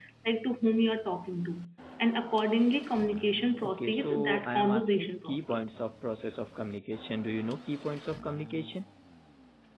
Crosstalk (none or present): present